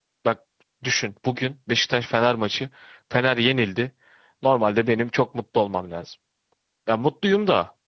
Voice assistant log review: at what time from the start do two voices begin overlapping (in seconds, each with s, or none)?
none